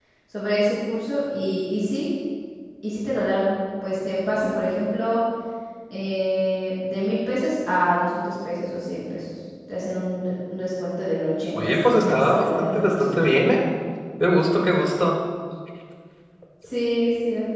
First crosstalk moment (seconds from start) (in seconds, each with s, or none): 11.6 s